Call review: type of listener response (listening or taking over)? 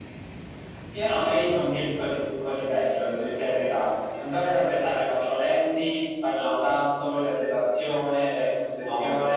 taking over